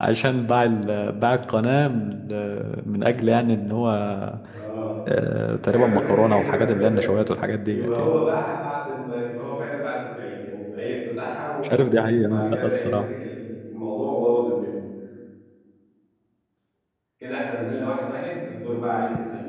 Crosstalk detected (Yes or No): Yes